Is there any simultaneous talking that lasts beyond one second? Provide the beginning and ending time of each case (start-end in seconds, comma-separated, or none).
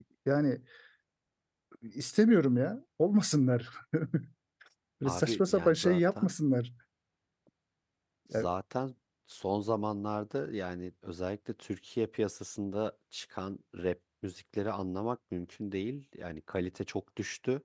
5.0-6.3